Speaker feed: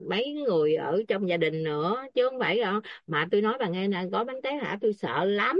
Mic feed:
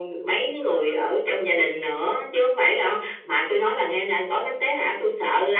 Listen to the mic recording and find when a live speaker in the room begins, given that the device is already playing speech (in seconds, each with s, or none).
none